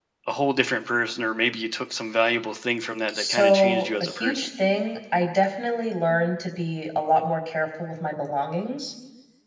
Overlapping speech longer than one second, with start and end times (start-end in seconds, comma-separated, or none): 3.1-4.5